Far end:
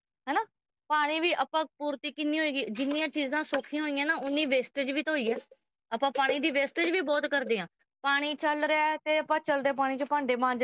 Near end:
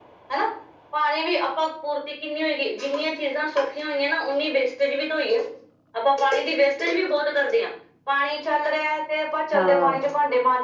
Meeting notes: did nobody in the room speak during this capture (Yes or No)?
No